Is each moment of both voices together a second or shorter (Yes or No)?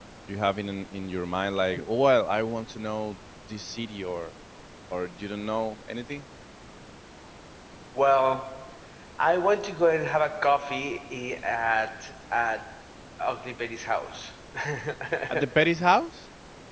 Yes